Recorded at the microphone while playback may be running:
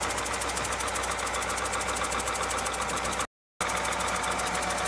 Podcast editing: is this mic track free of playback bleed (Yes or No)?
Yes